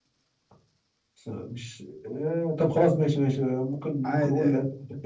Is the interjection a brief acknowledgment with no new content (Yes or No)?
Yes